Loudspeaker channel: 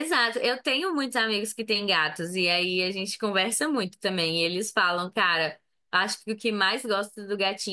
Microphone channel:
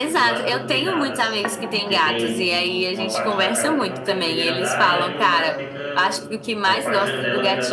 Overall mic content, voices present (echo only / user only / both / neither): both